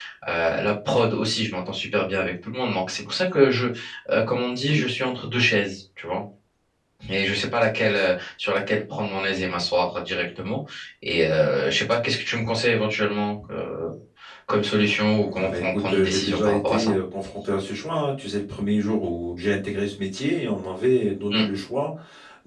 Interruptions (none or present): present